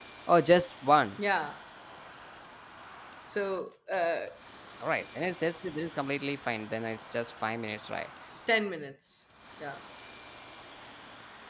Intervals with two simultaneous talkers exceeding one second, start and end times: none

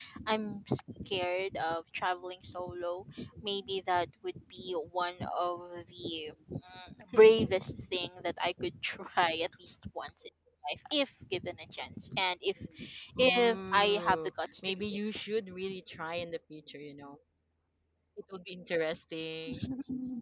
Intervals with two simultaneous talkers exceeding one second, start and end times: 13.2-15.2

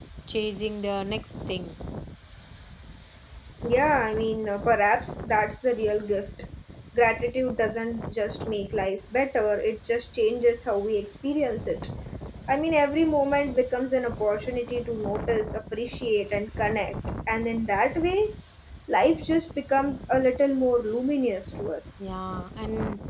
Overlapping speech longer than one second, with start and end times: none

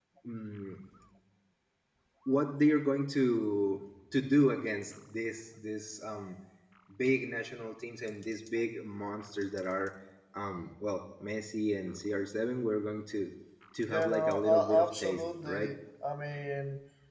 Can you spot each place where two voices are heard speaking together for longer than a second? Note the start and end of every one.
13.9-15.7

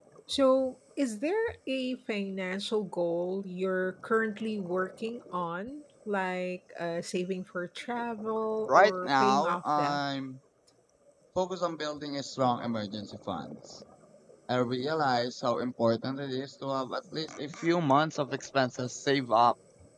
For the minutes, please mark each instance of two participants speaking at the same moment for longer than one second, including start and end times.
8.7-10.0

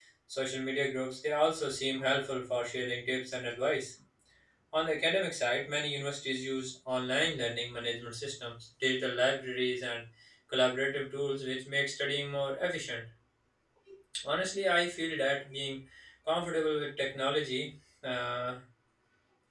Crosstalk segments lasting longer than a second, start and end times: none

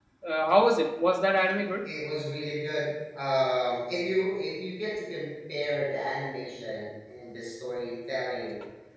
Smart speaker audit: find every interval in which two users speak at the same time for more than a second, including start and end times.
none

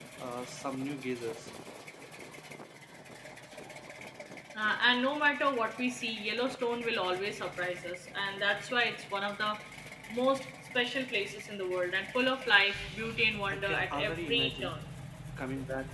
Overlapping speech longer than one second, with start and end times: 13.5-14.7

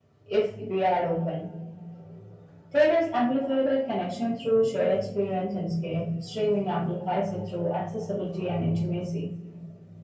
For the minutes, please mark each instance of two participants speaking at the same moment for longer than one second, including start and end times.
none

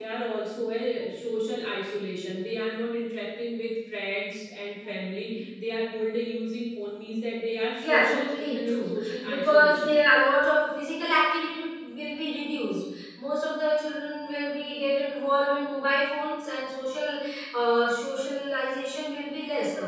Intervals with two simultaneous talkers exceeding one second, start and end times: 7.8-9.9

